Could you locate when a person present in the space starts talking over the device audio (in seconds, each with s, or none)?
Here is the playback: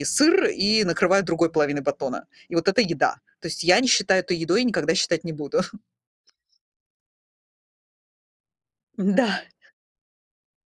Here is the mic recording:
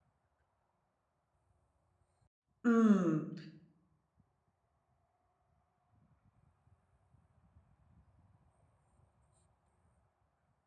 2.6 s